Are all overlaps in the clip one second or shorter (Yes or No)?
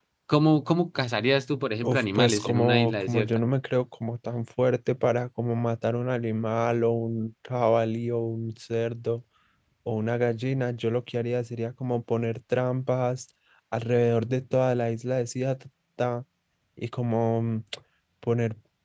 No